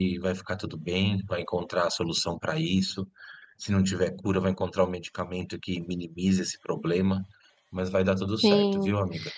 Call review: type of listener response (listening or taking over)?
taking over